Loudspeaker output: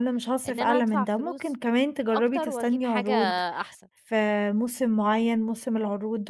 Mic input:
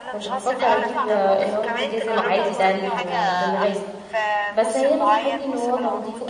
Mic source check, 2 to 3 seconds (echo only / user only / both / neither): both